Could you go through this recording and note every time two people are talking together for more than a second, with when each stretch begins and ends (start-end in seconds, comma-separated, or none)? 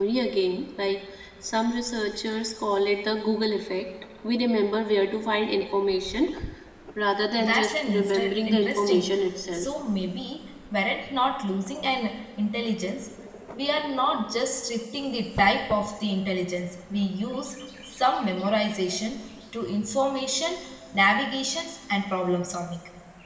7.5-9.0